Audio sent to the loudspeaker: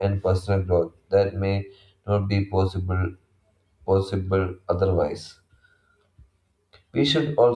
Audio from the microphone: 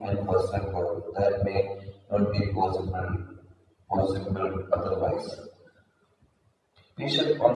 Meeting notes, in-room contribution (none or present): none